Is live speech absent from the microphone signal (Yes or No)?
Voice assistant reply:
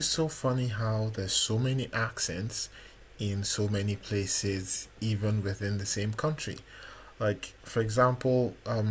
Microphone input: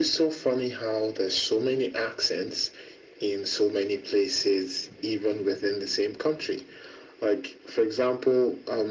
Yes